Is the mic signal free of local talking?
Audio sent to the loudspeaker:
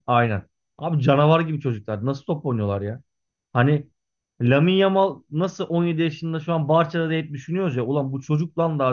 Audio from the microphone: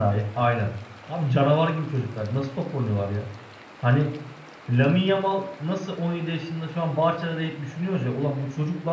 Yes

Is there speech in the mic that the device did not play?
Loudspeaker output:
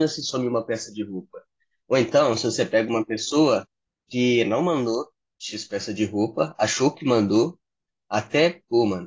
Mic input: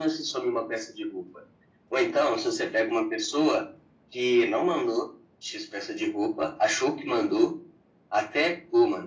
No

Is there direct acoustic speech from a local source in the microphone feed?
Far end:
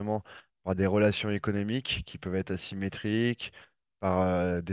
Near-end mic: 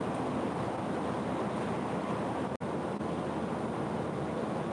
No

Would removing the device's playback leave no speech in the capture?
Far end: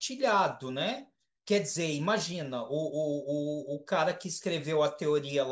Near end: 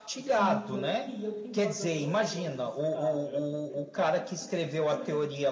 No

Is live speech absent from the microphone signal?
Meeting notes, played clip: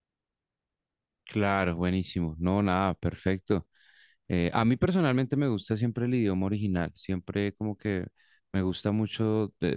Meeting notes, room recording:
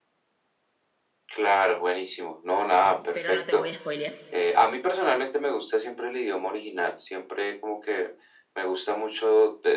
No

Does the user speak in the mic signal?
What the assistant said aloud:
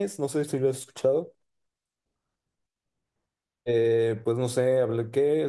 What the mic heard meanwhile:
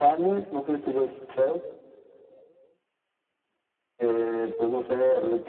No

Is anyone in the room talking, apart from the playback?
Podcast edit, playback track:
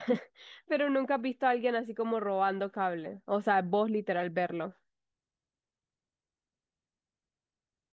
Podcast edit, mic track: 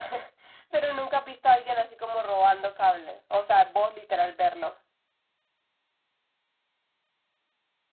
No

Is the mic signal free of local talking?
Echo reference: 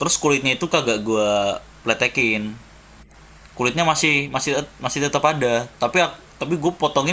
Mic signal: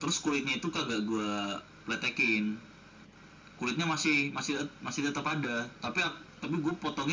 Yes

